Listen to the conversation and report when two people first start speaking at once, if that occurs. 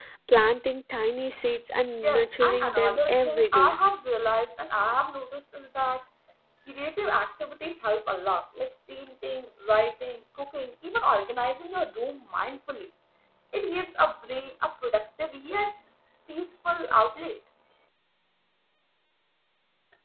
2.0 s

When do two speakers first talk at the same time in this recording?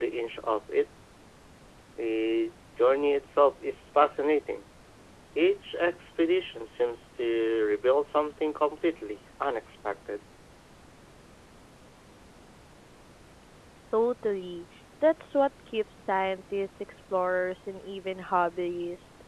none

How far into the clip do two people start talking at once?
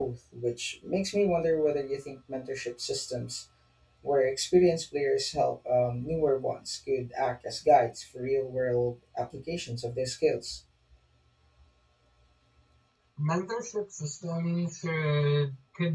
none

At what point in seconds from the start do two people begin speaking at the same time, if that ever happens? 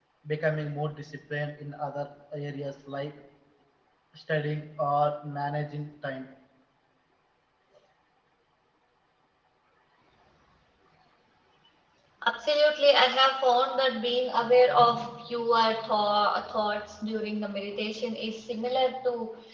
none

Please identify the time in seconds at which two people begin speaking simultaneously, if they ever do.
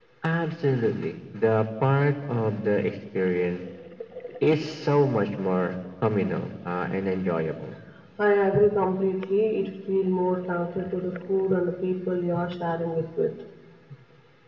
none

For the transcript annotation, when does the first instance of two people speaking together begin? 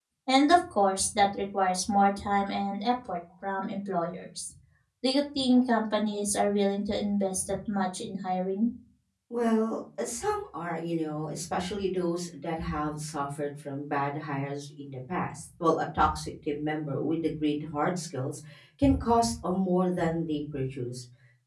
none

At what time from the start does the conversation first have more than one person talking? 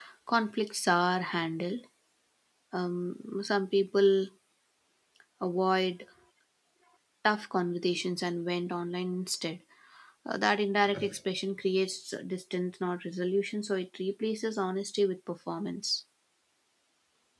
none

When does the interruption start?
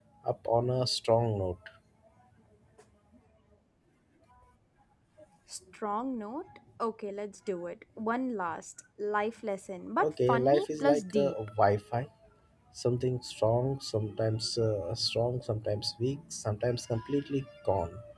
10.0 s

